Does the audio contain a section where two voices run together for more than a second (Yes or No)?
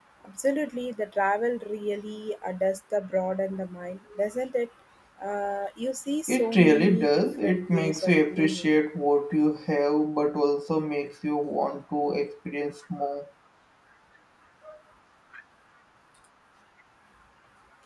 Yes